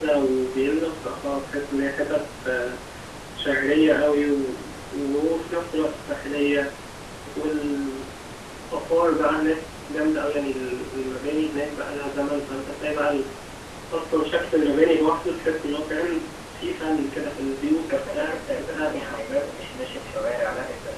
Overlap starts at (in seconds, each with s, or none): 17.9 s